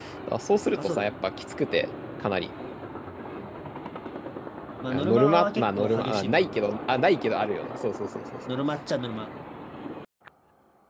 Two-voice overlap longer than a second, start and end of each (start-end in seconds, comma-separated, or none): 4.9-6.7